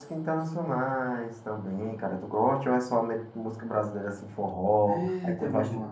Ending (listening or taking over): taking over